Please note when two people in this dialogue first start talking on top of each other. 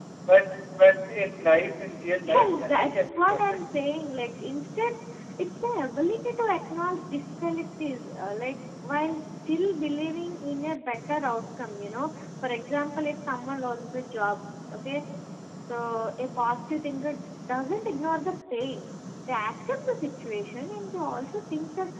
2.1 s

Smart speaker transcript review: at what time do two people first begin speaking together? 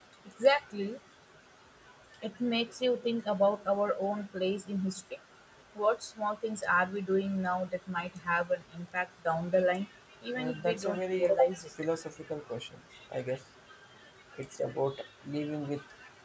10.4 s

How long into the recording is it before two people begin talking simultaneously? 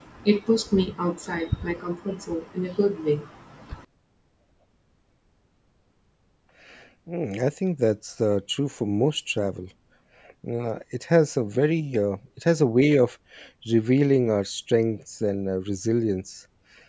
none

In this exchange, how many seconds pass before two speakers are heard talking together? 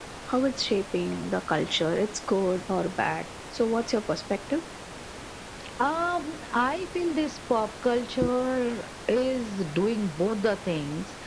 none

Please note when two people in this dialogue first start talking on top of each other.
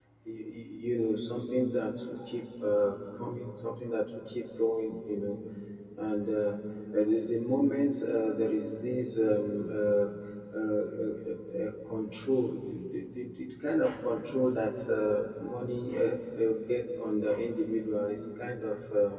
none

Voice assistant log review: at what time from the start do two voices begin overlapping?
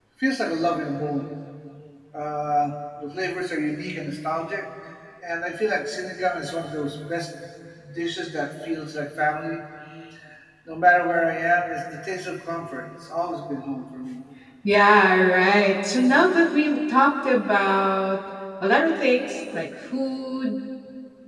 none

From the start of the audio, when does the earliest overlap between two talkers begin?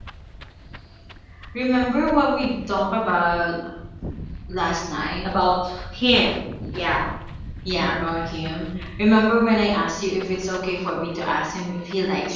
none

